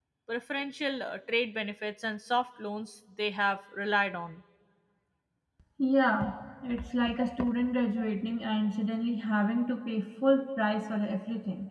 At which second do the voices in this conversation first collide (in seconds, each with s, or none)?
none